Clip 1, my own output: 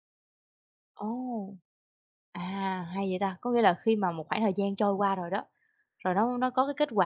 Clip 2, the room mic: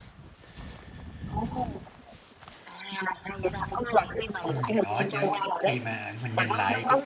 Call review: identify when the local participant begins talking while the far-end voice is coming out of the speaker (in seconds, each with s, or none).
4.5 s